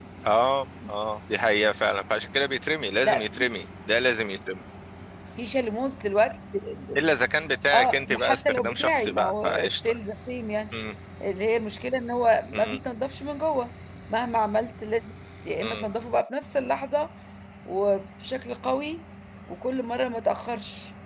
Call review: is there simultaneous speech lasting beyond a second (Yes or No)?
Yes